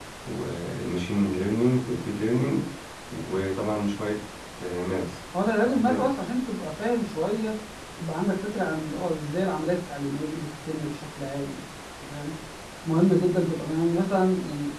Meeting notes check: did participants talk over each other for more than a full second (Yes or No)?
No